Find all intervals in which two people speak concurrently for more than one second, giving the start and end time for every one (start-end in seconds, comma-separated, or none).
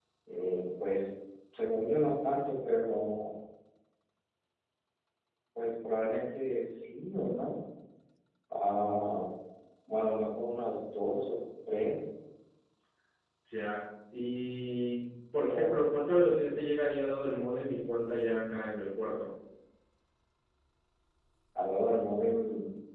none